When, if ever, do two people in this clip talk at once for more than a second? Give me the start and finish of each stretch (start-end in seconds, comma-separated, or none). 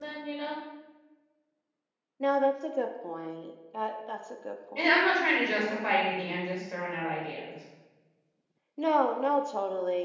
none